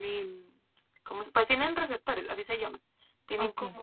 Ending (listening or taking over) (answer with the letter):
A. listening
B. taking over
A